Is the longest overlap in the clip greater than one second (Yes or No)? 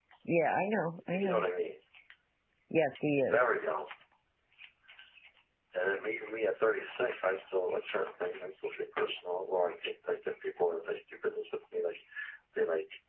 No